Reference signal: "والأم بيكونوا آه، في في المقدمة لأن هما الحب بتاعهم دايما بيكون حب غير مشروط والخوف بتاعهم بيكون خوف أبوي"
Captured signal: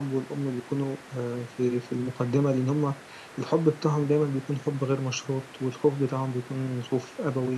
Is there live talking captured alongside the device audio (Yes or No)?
No